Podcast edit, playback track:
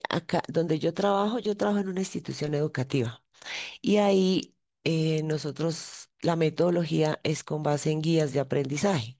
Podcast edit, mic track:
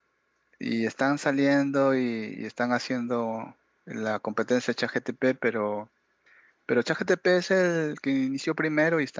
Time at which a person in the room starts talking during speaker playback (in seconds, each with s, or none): 0.6 s